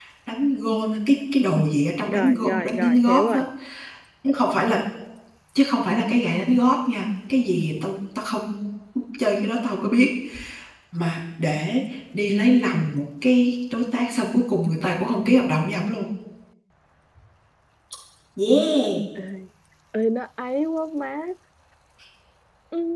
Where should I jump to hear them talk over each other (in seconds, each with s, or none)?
2.0 s